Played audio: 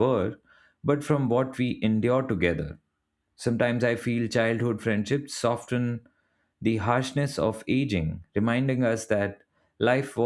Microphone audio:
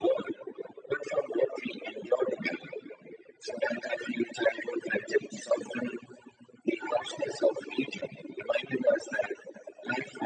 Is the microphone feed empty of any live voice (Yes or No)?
Yes